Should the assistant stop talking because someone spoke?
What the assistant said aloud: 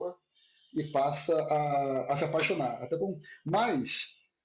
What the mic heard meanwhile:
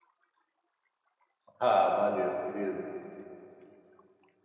Yes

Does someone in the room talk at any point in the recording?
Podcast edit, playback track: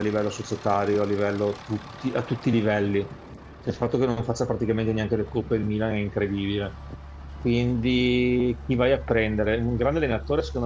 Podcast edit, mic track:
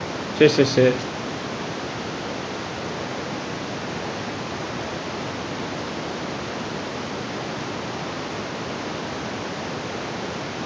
Yes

